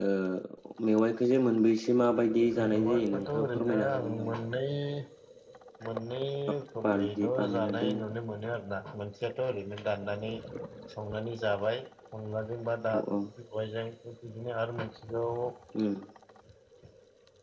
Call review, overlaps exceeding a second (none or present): present